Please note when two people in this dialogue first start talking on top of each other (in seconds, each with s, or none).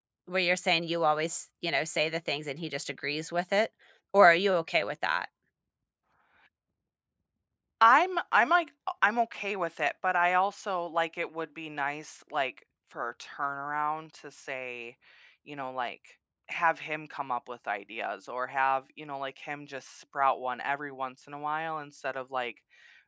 none